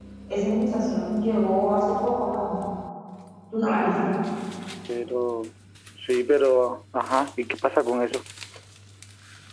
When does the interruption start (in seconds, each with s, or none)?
none